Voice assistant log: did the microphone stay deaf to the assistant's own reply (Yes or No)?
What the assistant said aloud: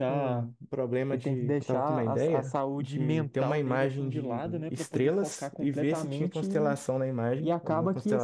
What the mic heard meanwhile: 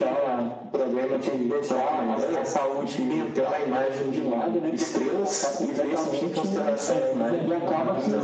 No